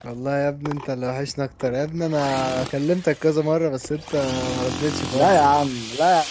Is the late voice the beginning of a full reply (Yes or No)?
Yes